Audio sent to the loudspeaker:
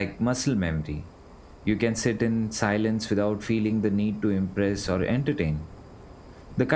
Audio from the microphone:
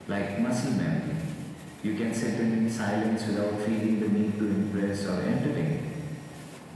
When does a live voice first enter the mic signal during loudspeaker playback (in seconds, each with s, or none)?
none